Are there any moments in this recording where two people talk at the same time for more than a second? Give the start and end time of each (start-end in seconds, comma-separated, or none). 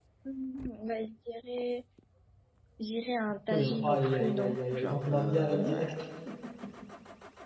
3.5-6.0